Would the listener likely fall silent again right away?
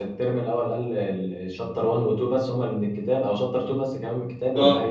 No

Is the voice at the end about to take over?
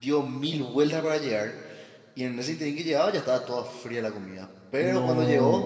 No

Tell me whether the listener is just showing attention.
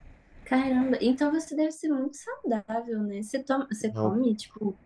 Yes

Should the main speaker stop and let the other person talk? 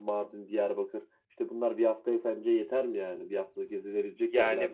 Yes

